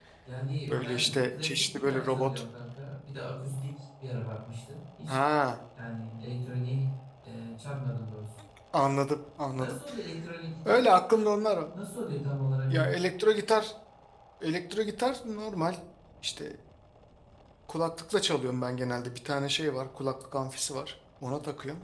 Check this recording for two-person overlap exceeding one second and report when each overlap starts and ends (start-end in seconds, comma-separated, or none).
0.6-2.3